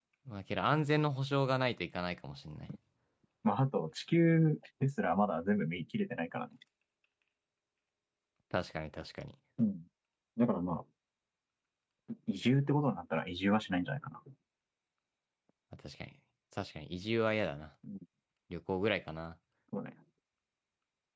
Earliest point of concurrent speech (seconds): none

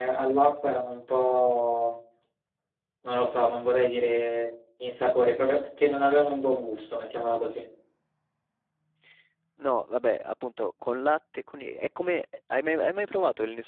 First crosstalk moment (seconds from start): none

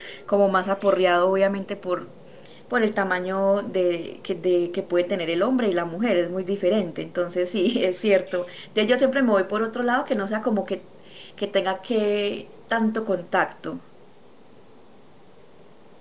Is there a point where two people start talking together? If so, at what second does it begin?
none

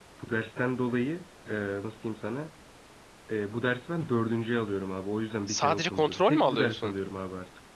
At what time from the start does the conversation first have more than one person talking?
5 s

